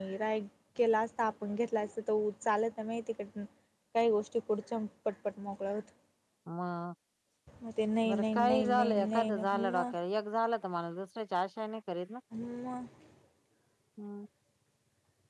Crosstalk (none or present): present